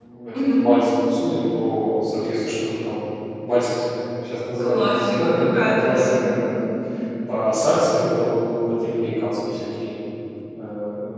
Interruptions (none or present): present